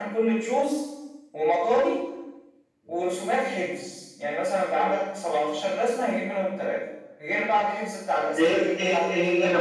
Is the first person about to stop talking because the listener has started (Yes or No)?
Yes